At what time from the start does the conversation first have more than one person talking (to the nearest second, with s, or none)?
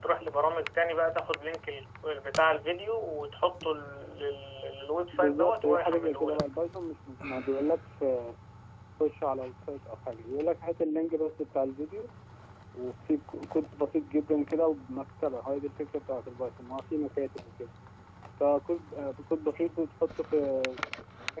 5 s